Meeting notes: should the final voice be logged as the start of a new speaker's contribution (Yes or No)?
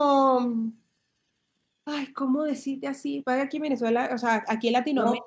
Yes